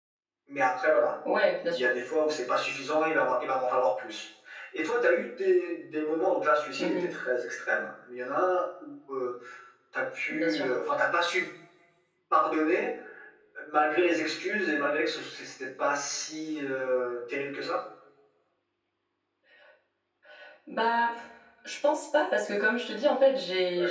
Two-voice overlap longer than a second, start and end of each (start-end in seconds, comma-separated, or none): none